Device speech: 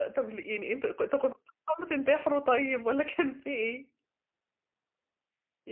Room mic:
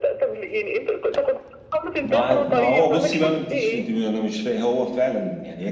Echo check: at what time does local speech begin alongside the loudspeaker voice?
2 s

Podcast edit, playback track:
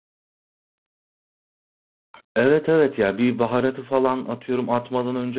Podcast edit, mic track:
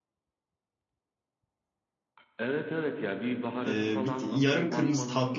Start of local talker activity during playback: 4 s

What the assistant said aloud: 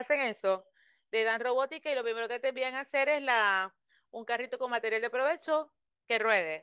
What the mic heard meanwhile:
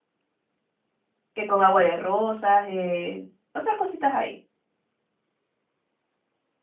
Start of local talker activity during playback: 1 s

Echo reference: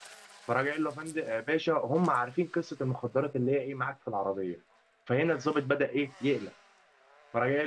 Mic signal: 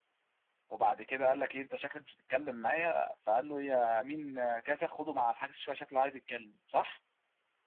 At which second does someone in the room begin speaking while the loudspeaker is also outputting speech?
1 s

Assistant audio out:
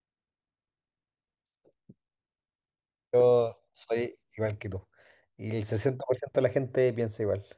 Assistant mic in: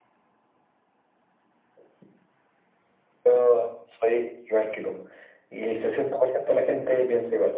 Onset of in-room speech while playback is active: none

